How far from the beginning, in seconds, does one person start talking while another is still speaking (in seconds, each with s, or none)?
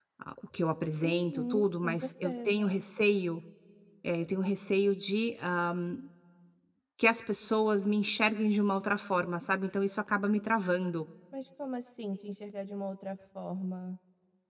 1.0 s